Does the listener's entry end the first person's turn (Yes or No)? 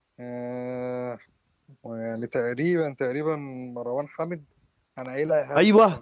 Yes